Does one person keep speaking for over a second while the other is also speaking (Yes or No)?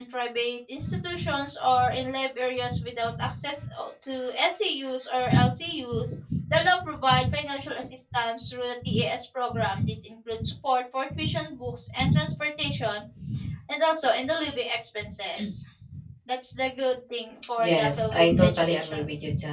Yes